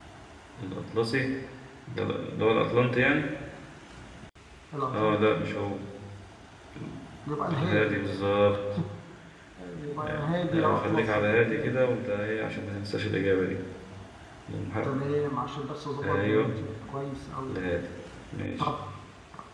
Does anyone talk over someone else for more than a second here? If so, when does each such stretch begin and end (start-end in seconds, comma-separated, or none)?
10.0-11.8